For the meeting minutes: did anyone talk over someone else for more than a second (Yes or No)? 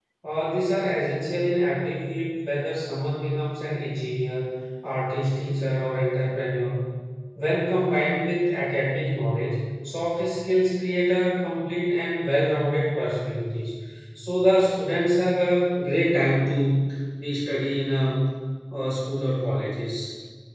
No